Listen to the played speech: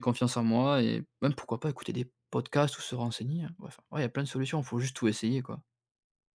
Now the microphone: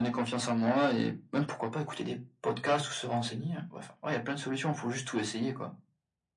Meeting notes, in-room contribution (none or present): none